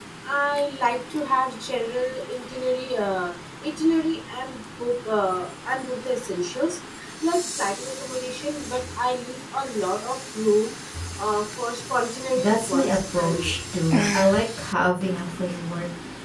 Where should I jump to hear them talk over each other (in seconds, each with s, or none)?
12.3 s